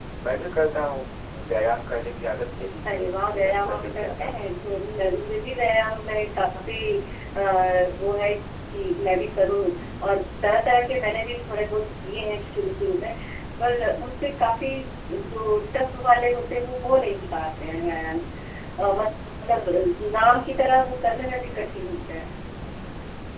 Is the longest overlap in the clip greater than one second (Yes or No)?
Yes